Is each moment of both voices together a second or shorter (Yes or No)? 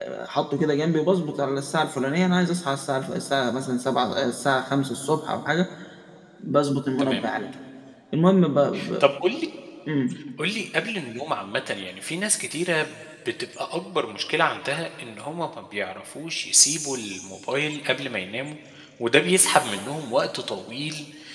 Yes